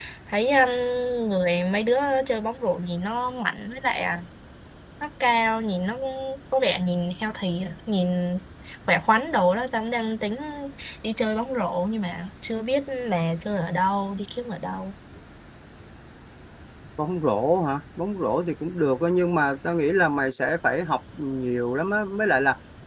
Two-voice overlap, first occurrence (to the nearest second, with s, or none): none